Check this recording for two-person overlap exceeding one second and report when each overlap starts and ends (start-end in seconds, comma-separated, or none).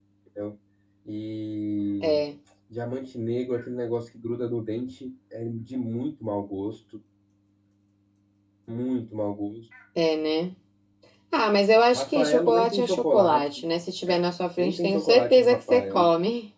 11.9-13.4, 14.6-16.1